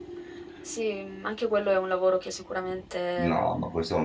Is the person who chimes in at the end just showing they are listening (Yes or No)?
No